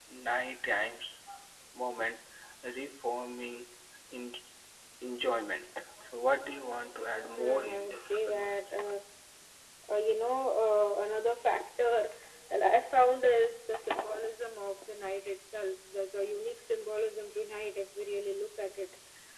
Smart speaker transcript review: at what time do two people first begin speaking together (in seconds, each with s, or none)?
7.3 s